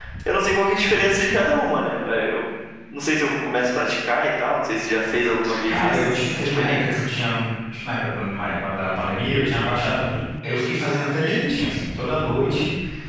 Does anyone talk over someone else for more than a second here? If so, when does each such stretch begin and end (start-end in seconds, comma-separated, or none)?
5.7-7.0